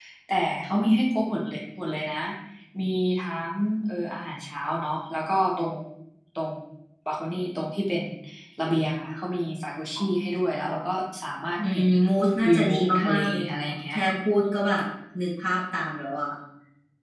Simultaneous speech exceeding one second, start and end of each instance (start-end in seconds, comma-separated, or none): 12.5-13.9